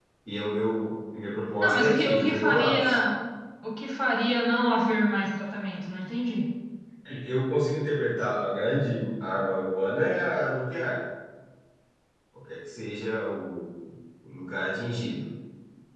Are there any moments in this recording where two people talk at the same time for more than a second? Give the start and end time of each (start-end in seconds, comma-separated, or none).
1.6-3.0